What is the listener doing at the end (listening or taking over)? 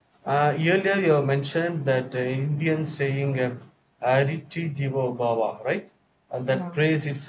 listening